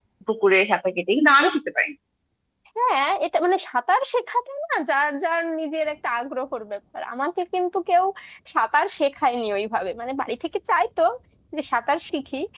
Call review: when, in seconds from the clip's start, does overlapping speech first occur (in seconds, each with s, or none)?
none